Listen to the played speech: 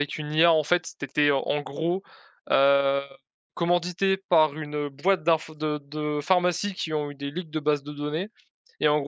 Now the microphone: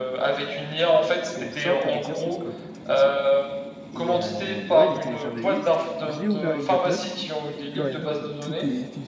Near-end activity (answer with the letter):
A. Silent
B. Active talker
B